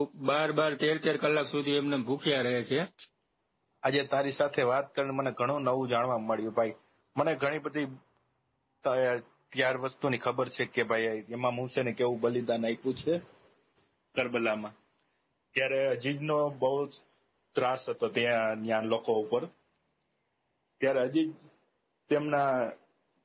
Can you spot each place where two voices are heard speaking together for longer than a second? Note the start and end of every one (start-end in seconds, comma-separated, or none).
none